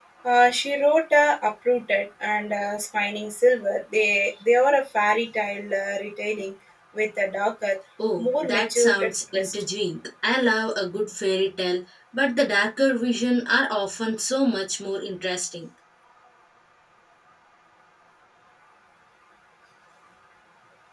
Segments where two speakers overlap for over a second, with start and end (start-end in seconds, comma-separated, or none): 8.2-9.5